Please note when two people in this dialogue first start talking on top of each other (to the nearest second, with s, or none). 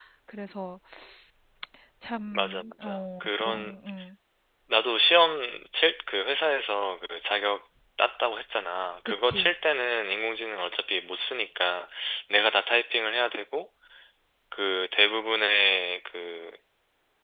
2 s